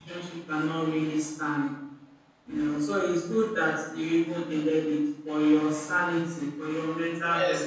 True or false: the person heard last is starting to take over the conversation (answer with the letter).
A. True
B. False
A